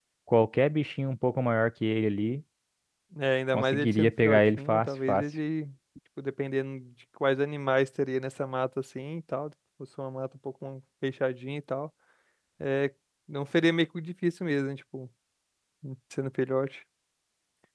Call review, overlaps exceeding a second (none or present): present